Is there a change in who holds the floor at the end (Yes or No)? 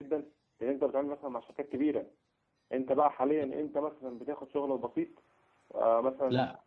Yes